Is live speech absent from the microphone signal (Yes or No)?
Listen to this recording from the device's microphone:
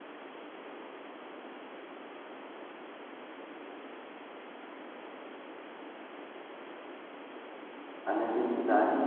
No